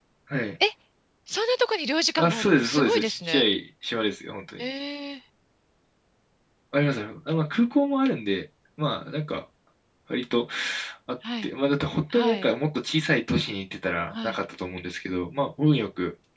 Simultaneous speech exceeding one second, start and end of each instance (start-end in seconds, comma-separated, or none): 2.2-3.5